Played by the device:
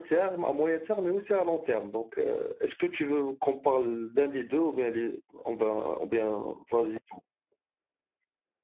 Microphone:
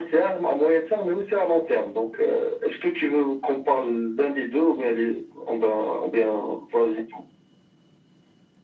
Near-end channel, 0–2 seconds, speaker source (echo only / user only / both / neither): echo only